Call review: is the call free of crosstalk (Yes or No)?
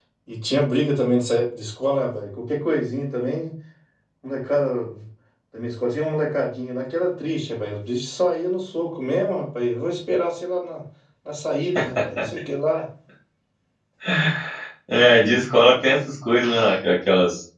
Yes